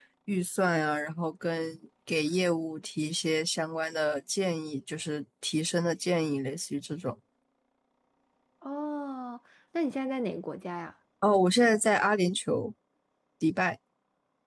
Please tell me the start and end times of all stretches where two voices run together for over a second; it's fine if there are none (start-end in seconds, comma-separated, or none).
none